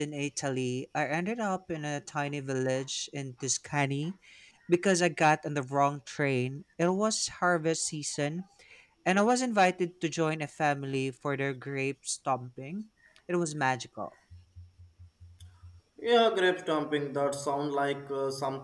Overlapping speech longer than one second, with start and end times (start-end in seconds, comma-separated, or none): none